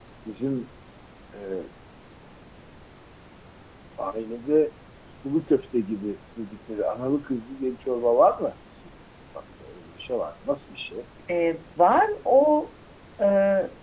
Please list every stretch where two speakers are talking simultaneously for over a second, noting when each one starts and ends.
none

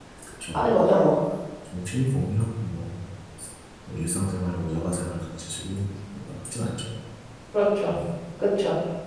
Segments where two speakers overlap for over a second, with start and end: none

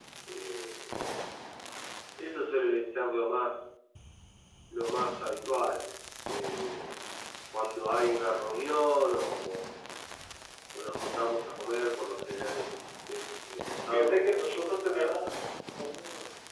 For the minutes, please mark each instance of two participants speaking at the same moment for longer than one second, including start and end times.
13.9-15.2

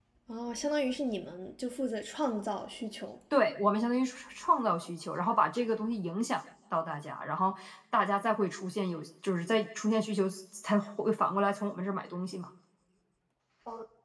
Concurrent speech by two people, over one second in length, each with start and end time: none

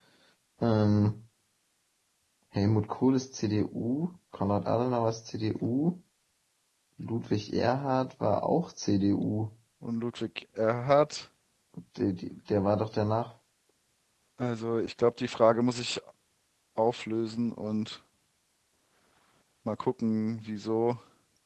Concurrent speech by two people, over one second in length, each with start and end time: none

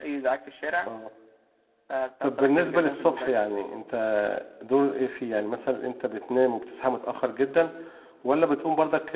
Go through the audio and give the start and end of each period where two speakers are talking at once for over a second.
2.2-3.5

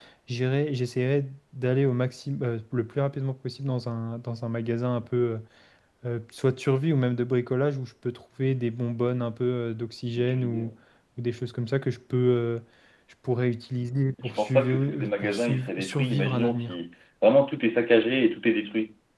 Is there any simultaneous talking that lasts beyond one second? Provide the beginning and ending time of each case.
14.2-16.8

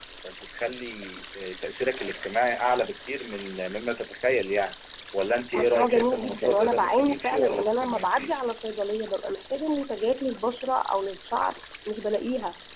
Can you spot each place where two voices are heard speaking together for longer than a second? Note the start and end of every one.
5.6-8.4

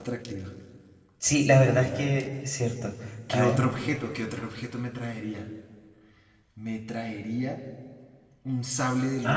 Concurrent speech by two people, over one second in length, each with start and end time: none

